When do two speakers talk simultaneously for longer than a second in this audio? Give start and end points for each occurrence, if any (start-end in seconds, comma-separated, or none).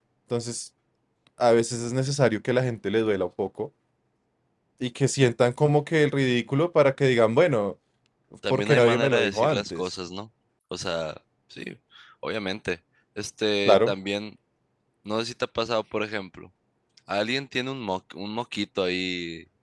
8.5-9.8